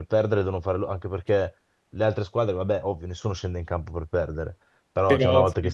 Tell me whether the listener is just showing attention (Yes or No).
Yes